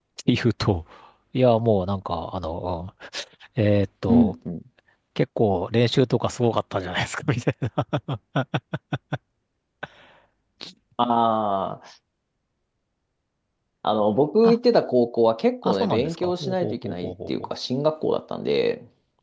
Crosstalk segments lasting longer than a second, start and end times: 15.6-17.3

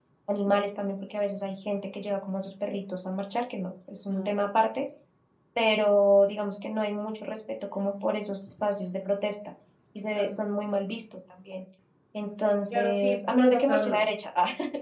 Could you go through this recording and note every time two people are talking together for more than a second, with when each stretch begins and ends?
12.7-14.0

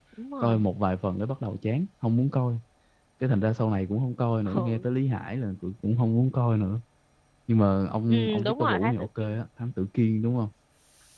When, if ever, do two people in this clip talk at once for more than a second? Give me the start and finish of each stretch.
8.1-9.4

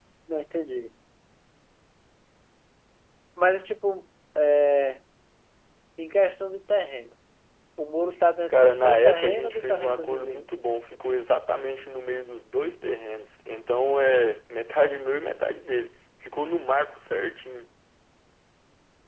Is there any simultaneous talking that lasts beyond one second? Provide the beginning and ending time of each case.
8.5-10.5

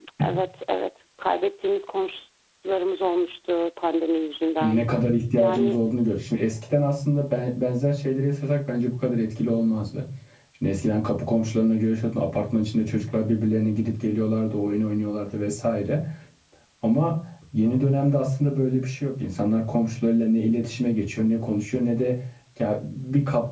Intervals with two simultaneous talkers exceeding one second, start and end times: none

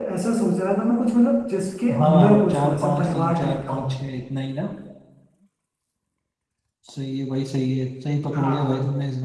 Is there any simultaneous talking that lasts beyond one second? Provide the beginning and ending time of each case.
2.0-4.0

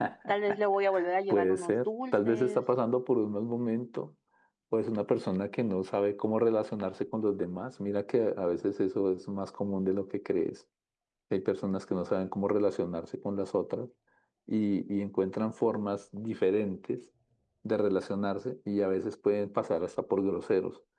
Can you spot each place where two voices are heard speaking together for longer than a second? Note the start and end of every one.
1.3-2.6

